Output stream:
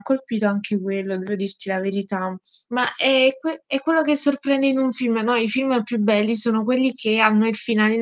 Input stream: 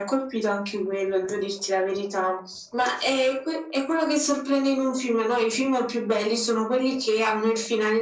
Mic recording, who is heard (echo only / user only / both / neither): echo only